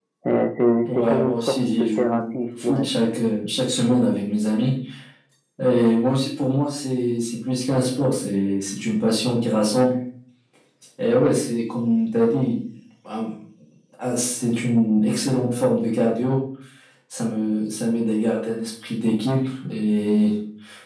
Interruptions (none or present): present